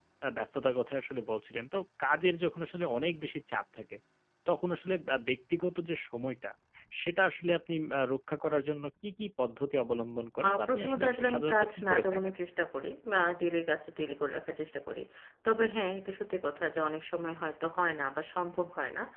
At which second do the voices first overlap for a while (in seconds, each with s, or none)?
10.4 s